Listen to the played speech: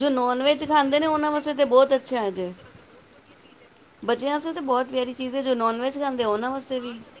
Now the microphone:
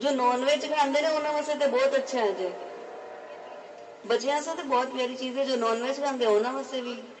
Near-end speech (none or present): none